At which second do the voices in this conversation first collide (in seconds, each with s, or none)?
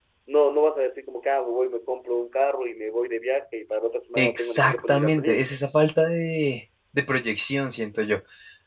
4.2 s